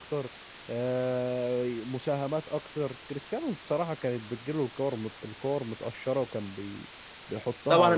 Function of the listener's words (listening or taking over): taking over